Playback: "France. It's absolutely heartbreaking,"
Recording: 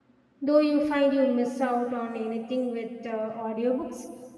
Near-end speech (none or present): present